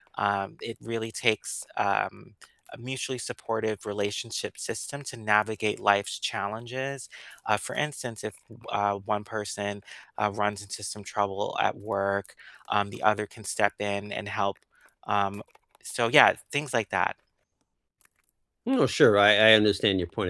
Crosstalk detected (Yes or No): No